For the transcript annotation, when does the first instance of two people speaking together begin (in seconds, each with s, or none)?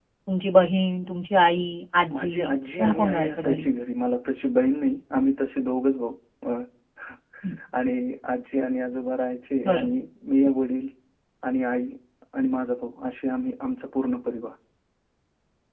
2.1 s